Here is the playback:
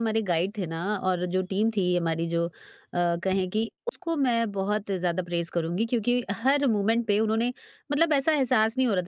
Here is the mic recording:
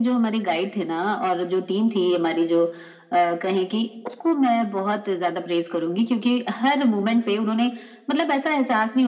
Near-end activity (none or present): none